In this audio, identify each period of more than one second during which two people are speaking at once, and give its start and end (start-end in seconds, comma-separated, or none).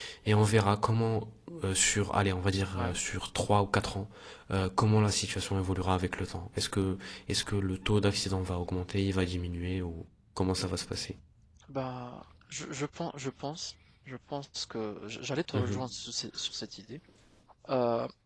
none